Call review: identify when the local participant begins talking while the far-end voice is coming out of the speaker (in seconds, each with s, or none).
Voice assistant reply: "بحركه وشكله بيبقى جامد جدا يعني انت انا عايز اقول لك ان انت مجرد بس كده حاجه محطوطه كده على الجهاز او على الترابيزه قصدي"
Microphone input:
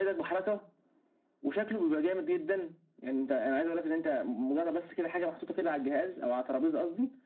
none